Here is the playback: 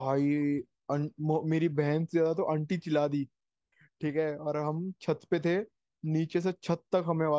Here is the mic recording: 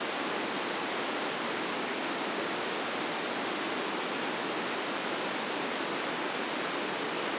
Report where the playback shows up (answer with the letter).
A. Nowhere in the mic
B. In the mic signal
A